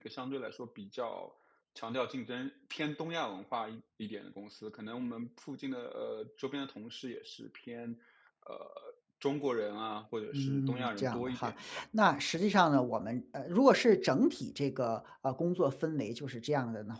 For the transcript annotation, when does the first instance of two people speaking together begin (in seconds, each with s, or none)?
10.3 s